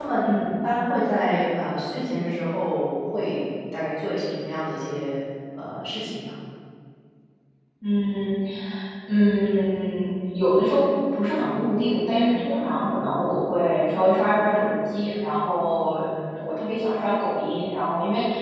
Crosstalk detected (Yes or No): No